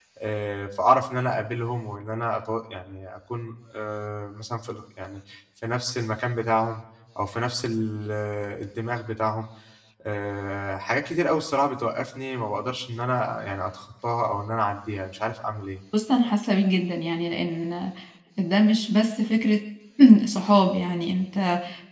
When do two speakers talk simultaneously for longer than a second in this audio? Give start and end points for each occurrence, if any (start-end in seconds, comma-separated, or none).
none